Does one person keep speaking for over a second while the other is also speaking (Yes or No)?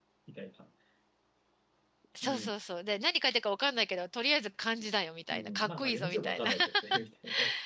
Yes